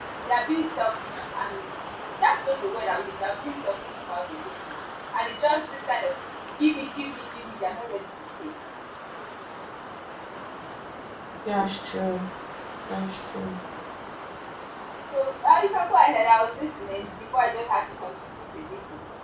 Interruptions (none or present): none